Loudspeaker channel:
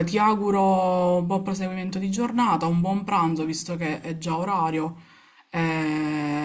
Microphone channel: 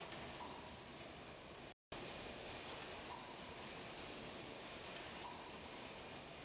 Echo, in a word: none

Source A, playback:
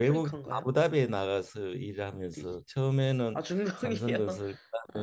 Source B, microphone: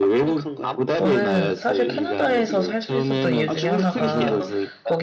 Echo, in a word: present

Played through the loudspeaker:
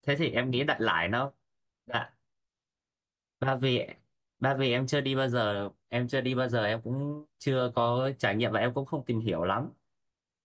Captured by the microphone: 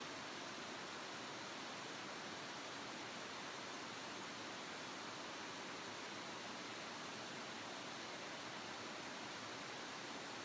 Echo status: none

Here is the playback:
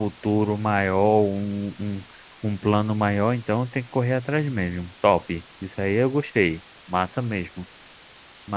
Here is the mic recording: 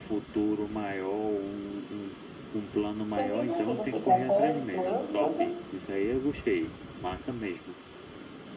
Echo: present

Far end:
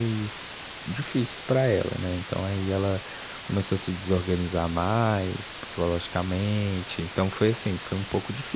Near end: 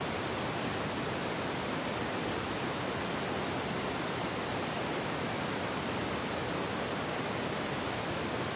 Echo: none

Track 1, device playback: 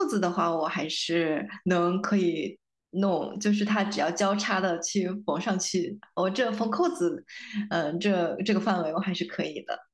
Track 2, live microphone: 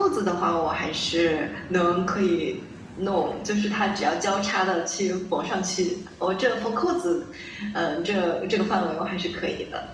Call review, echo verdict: present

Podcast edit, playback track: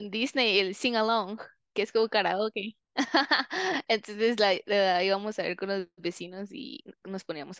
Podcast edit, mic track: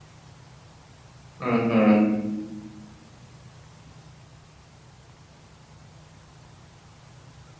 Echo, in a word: none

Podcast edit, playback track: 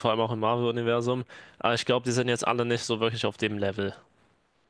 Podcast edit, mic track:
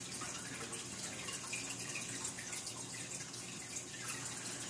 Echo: none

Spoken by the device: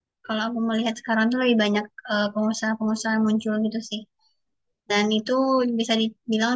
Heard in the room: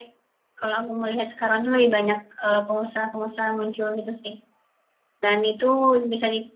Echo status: present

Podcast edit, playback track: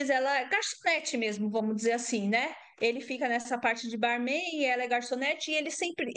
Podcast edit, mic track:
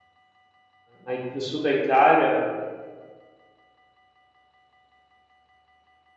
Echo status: none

